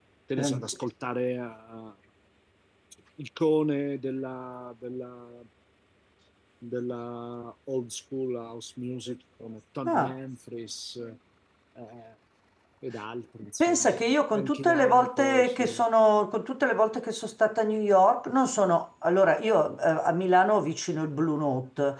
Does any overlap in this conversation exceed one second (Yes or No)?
Yes